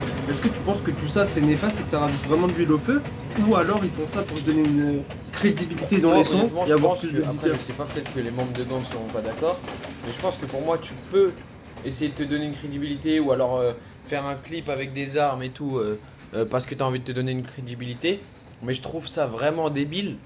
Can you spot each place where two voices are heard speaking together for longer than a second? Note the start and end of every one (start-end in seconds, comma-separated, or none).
5.7-7.6